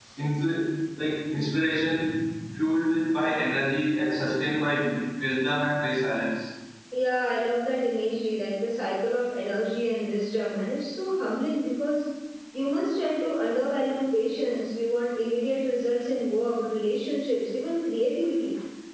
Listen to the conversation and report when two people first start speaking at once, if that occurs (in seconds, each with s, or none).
none